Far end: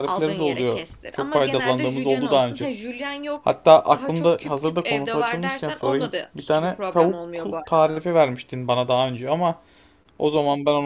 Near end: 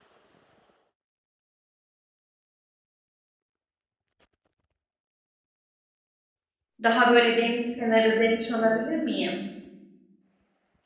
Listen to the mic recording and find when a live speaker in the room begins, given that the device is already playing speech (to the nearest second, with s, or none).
7 s